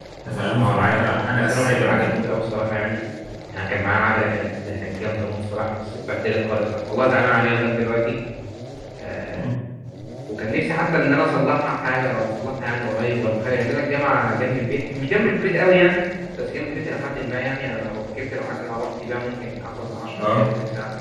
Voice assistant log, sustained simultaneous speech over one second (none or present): present